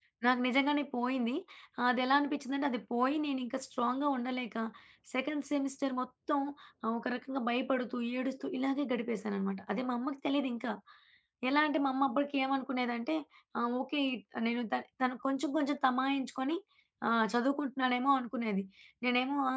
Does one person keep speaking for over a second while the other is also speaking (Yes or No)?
No